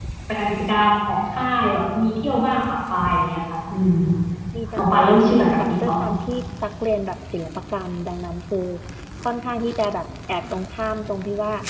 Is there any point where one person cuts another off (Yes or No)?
Yes